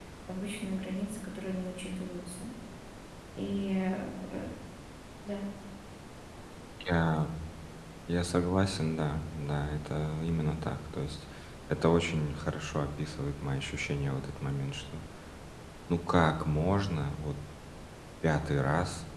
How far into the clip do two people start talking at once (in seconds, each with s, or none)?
none